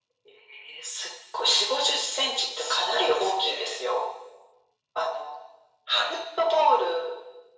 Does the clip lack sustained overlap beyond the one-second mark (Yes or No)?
No